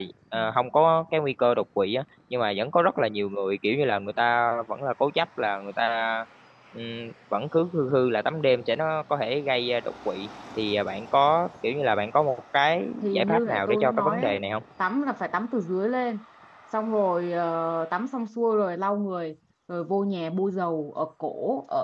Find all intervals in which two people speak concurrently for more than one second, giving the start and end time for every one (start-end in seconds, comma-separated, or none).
13.0-14.4